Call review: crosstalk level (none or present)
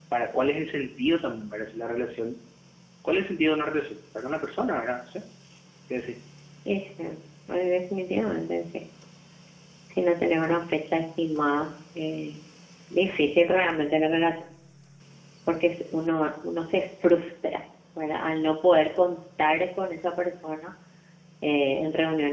none